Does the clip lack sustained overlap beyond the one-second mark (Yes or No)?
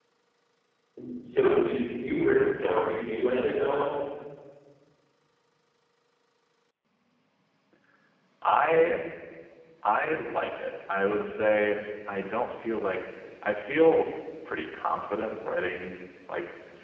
Yes